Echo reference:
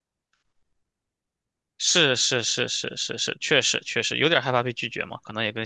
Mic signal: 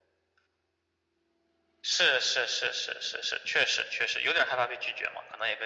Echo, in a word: present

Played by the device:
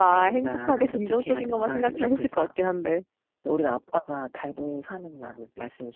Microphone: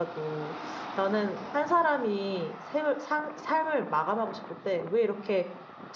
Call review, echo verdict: none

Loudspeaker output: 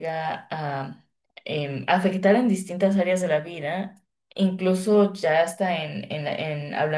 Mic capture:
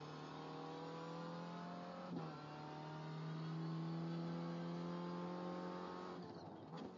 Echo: none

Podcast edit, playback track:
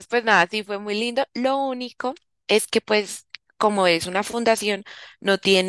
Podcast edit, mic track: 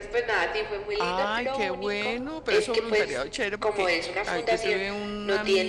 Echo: present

